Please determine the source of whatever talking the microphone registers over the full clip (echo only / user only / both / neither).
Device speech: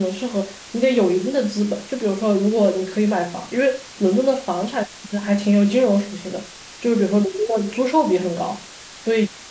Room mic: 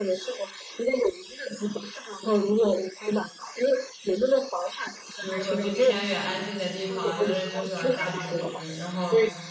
both